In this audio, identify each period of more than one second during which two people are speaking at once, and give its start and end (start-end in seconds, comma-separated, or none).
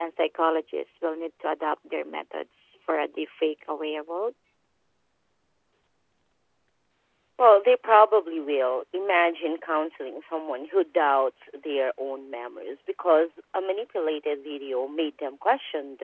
none